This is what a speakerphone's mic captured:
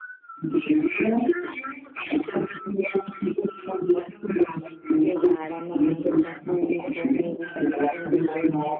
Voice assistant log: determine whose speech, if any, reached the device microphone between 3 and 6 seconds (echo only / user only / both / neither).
both